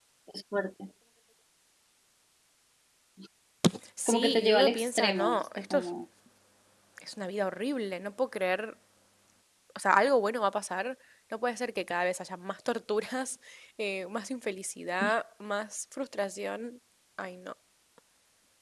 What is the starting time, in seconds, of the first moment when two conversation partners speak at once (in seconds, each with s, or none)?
4.1 s